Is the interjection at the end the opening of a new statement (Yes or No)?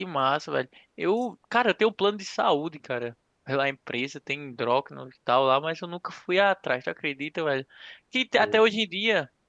No